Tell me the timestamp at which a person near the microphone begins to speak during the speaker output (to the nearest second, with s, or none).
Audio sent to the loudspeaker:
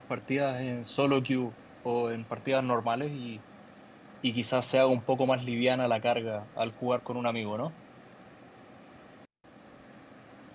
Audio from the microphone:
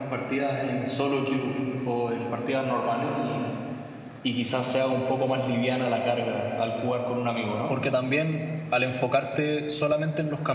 8 s